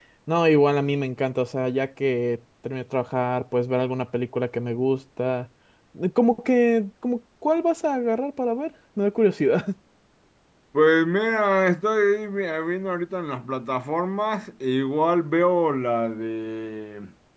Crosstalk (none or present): none